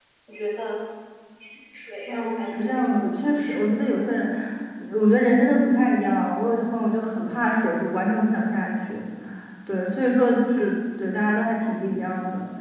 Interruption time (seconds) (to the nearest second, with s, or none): 2 s